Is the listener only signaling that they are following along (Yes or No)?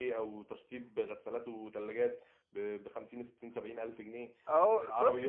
No